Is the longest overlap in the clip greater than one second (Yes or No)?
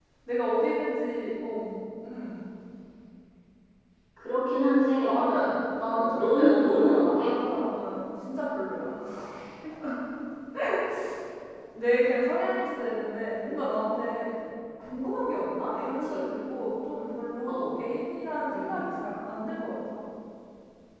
Yes